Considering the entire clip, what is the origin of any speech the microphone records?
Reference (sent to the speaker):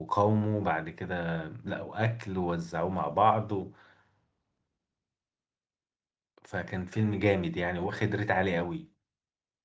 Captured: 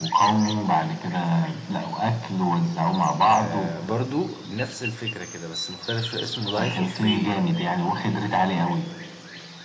both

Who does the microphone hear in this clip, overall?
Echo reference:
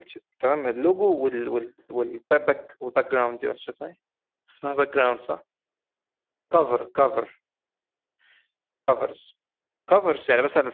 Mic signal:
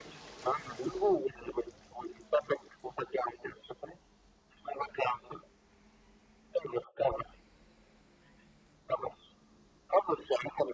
echo only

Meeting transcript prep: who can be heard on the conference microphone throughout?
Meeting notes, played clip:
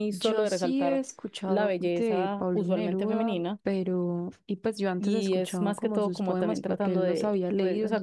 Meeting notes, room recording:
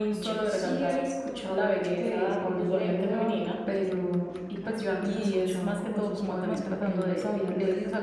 both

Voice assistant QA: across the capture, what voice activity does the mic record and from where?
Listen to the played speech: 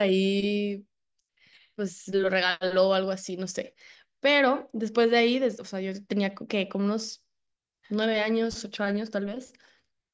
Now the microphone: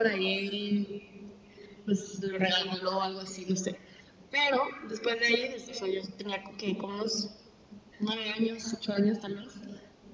echo only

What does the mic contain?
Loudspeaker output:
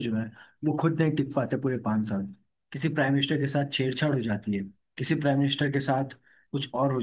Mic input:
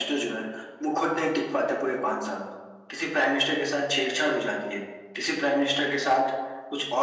echo only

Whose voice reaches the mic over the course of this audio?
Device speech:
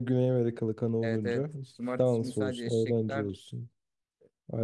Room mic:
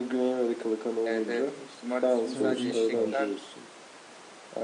both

